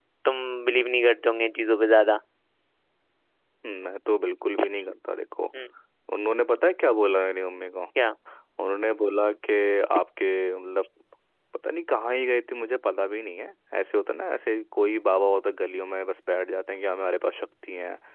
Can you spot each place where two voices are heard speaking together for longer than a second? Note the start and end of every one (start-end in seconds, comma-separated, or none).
none